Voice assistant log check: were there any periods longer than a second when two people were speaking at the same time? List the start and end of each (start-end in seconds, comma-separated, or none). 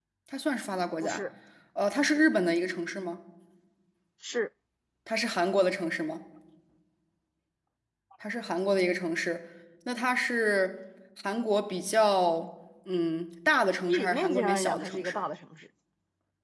13.9-15.2